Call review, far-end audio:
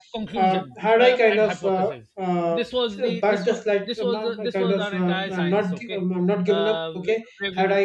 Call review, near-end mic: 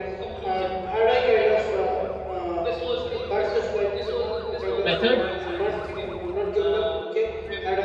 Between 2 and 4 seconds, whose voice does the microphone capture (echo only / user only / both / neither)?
echo only